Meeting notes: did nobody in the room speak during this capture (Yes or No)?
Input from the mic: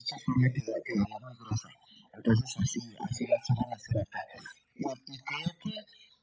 Yes